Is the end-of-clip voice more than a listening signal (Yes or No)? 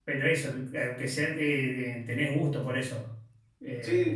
Yes